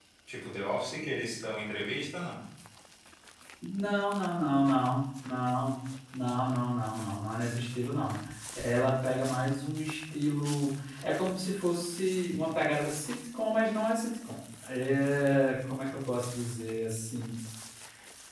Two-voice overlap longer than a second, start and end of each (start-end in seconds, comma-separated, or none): none